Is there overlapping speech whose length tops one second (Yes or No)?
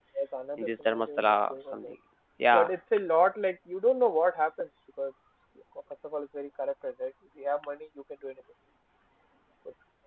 Yes